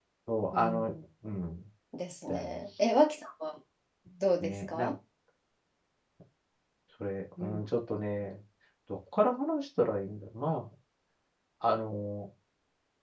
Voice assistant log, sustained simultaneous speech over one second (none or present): none